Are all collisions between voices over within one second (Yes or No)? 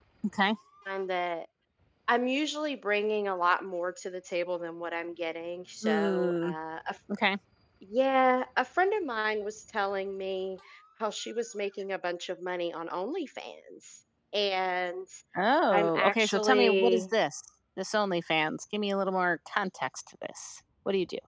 No